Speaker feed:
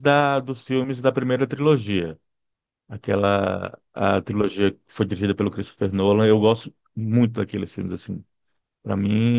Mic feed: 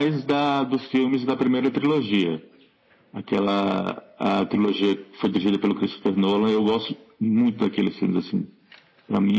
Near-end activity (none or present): none